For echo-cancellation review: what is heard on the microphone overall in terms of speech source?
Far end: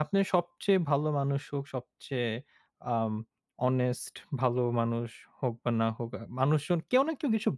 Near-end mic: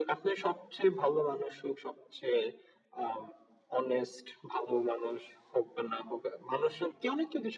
echo only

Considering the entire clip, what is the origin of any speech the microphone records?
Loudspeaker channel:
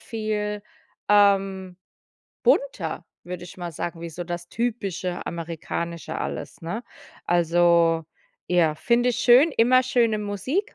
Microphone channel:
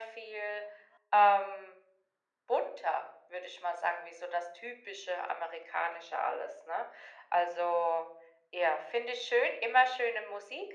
echo only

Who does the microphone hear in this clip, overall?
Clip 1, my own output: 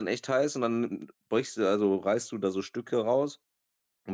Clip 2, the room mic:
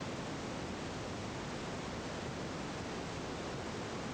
neither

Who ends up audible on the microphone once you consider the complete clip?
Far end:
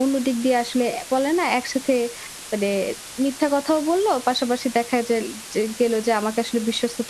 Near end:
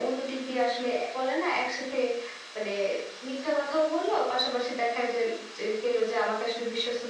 echo only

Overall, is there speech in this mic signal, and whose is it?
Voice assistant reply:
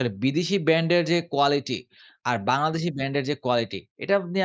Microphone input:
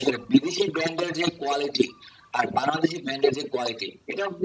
echo only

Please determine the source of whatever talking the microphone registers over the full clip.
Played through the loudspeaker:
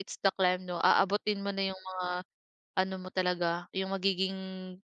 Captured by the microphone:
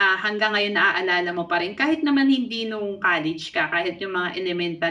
user only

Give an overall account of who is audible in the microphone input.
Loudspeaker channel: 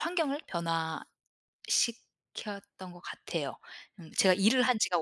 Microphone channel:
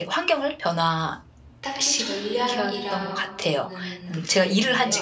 both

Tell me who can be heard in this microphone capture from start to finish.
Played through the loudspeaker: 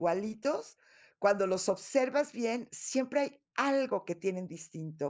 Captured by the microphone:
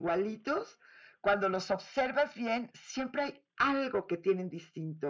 echo only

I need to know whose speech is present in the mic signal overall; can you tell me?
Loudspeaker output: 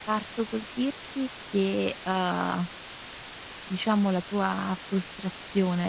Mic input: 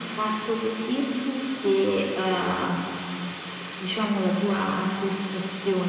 echo only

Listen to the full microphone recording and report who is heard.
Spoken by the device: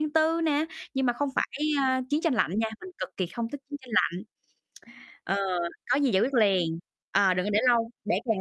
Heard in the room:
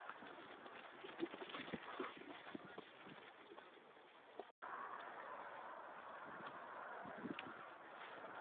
neither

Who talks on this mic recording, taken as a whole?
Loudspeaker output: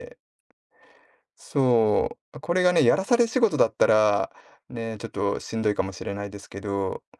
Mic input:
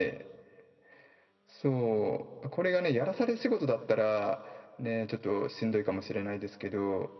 echo only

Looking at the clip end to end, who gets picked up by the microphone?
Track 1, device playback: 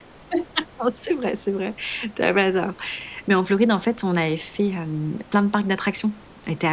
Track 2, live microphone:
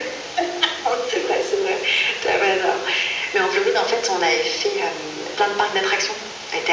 echo only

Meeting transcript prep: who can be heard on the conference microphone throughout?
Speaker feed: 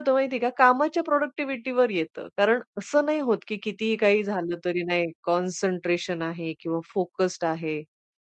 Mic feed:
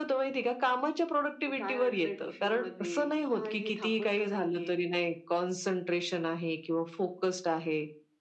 both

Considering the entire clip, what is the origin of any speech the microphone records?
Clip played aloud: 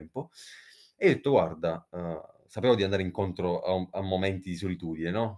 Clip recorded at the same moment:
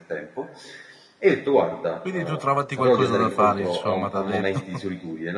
both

